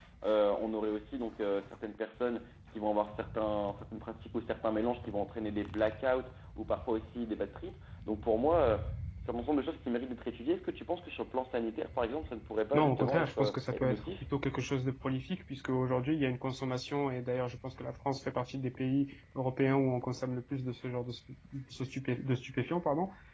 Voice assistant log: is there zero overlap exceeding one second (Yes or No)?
No